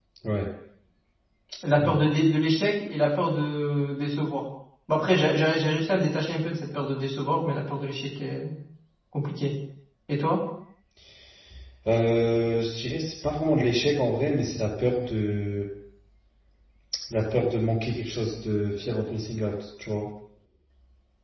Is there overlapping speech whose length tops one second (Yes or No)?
No